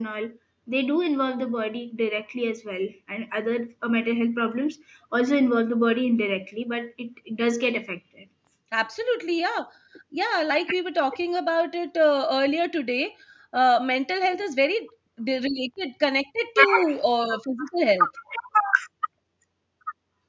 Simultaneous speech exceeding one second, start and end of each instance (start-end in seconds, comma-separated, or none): none